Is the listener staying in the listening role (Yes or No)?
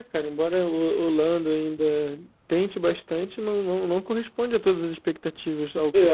No